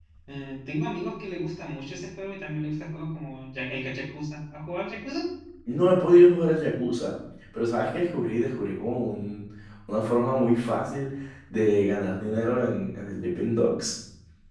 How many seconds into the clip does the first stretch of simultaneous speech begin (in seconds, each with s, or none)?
none